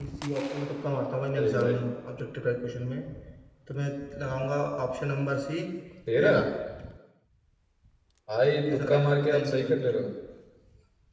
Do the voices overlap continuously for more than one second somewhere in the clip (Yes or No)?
Yes